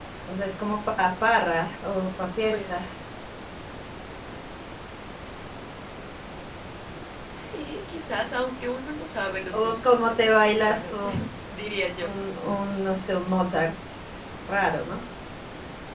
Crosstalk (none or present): present